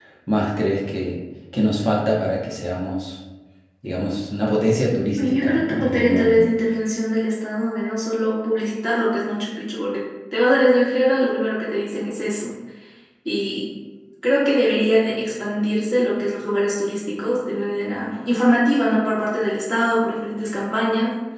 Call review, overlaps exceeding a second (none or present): present